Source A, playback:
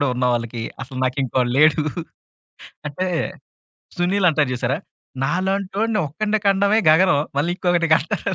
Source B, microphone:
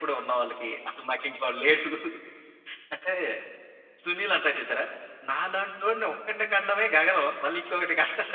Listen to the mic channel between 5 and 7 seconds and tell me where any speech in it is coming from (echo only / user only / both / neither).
echo only